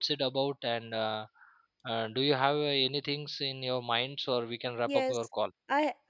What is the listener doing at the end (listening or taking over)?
taking over